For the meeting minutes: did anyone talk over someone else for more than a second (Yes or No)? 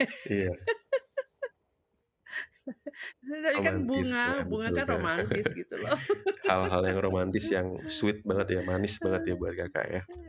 Yes